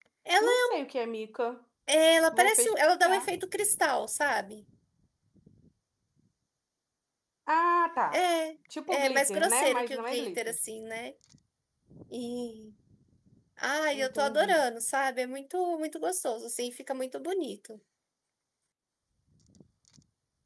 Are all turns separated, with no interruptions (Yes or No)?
No